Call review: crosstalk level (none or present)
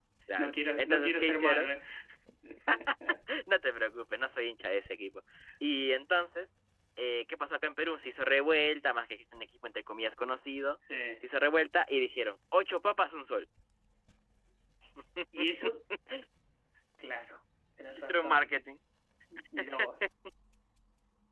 present